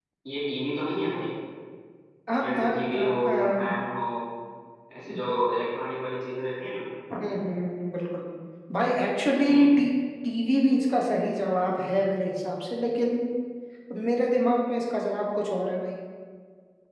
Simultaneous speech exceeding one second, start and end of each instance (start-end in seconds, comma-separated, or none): 2.4-3.7